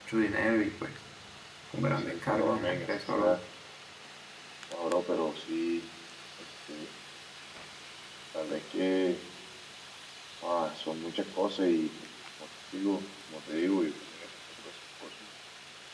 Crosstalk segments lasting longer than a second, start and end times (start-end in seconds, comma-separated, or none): 2.0-3.4